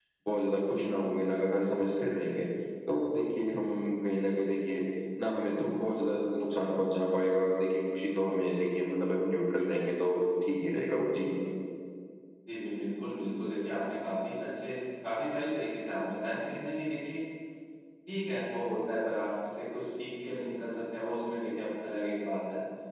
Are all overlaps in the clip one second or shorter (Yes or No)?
Yes